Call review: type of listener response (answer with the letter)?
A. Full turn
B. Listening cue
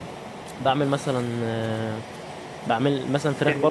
B